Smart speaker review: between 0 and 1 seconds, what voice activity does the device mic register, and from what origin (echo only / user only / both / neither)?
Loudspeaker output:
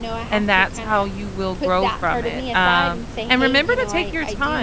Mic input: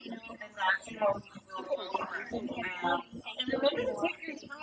echo only